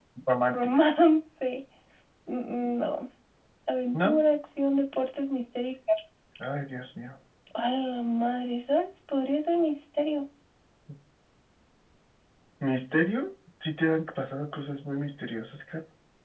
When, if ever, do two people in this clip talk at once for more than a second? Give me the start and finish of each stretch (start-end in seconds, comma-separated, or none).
none